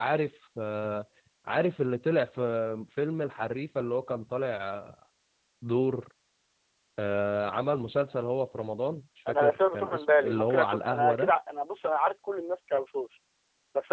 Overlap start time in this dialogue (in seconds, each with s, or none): 9.3 s